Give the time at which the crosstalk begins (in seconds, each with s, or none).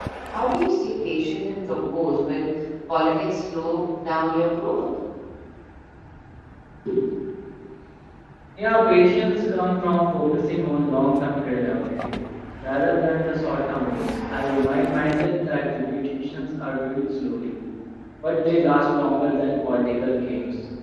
none